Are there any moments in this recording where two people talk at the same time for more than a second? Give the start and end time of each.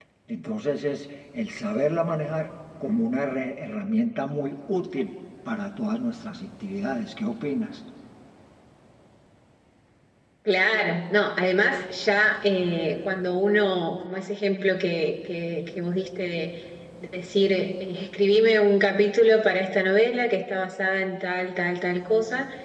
none

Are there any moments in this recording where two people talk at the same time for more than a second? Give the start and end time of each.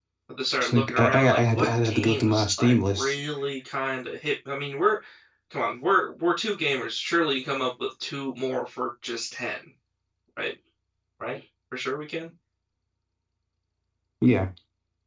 0.6-3.1

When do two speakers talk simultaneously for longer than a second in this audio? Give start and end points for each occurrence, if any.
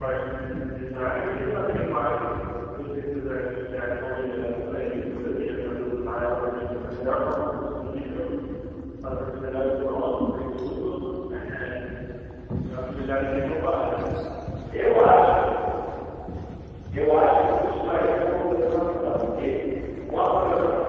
none

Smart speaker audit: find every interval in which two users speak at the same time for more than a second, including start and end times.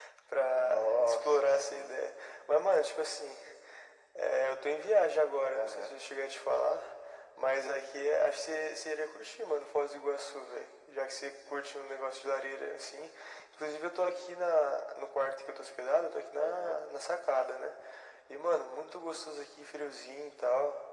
0.6-1.9

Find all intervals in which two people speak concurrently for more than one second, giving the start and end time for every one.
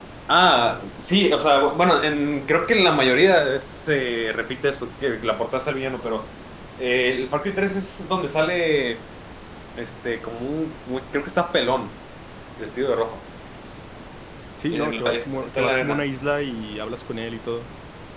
14.7-16.0

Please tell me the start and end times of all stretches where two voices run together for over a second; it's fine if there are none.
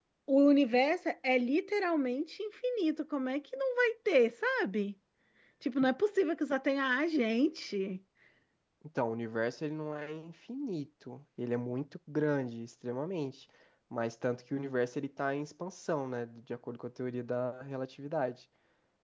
none

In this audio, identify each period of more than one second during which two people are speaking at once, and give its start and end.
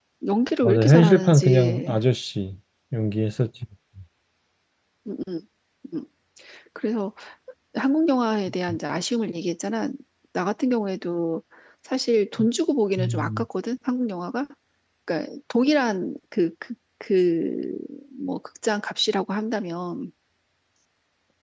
0.6-2.0

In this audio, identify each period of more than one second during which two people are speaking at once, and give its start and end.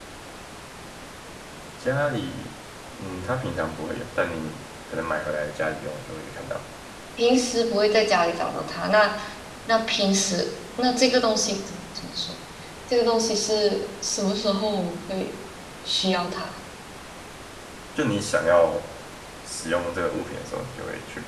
none

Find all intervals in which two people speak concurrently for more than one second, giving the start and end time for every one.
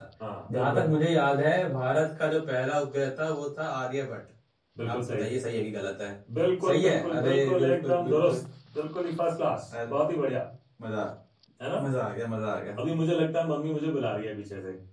6.6-8.4

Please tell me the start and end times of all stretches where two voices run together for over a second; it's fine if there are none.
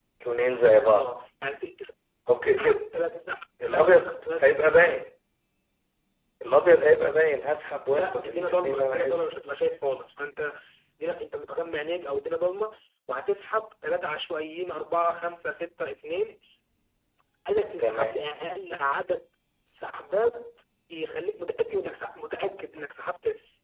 3.6-5.0, 7.9-9.2

